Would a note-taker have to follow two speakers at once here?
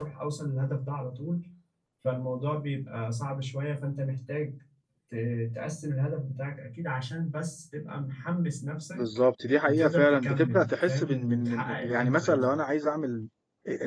Yes, from 9.7 s

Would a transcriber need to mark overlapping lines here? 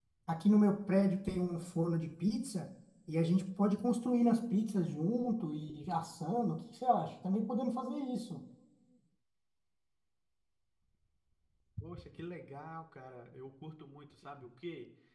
No

